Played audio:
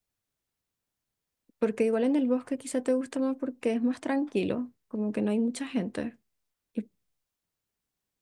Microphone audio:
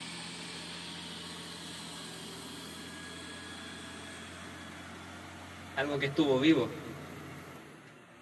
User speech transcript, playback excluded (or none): Algo que estuvo vivo.